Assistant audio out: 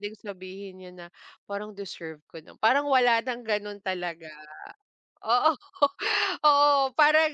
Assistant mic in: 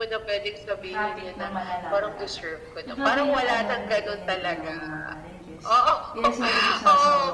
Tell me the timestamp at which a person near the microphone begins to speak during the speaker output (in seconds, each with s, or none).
0.8 s